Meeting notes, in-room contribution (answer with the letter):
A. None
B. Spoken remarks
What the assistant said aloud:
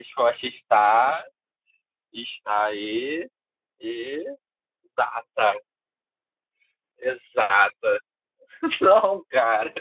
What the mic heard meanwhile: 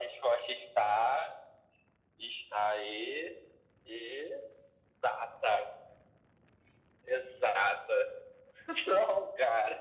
A